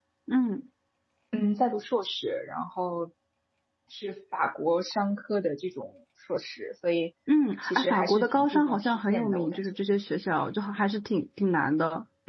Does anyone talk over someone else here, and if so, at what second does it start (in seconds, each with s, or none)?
7.6 s